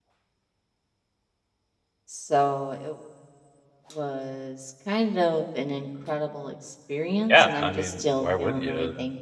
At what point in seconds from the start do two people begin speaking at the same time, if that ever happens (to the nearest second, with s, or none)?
7 s